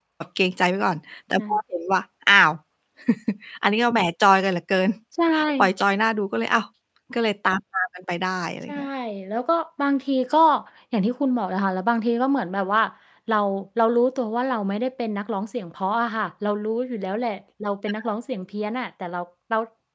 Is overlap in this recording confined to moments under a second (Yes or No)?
Yes